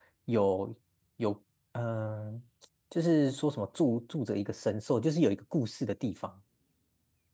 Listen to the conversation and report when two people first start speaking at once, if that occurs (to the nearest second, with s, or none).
none